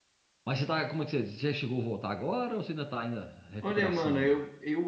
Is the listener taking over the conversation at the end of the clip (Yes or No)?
Yes